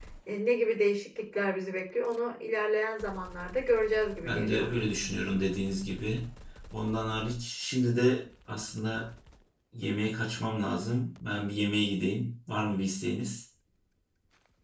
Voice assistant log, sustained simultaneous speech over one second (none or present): none